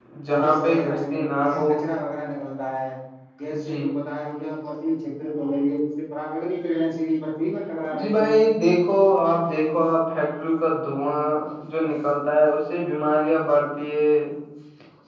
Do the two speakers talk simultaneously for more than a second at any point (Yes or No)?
Yes